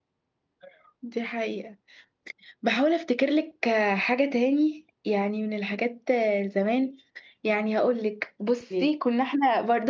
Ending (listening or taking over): listening